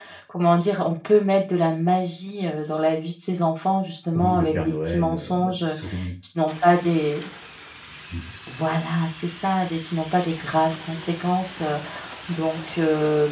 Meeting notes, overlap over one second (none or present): present